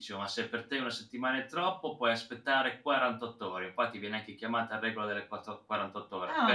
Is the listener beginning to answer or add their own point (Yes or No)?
Yes